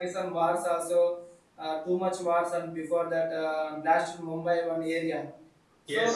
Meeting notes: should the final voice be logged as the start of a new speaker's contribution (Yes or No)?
Yes